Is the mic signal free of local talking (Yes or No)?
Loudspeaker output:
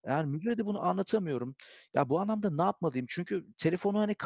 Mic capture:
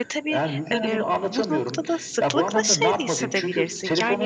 No